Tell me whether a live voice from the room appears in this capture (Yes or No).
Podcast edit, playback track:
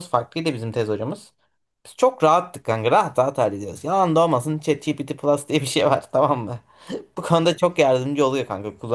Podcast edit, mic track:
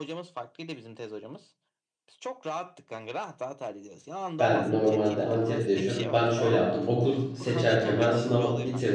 Yes